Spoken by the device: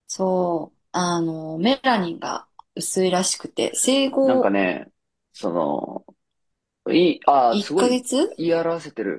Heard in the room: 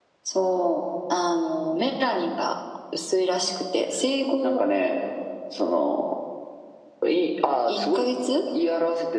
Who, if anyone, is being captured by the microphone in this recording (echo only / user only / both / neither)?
echo only